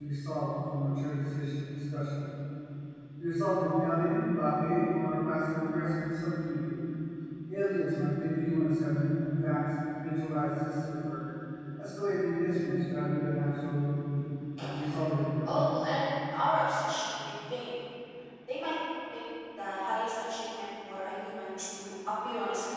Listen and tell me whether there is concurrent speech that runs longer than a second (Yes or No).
No